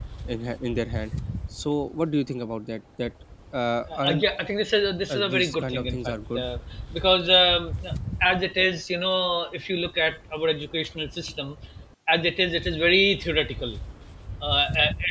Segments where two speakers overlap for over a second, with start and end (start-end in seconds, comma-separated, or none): 5.1-6.4